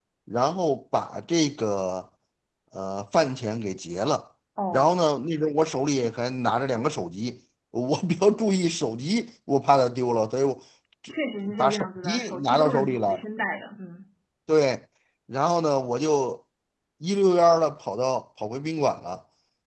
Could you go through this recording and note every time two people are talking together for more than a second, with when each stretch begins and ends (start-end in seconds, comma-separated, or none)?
11.6-13.2